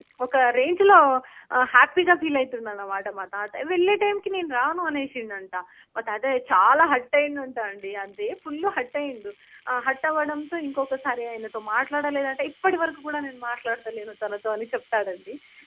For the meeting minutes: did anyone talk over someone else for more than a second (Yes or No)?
No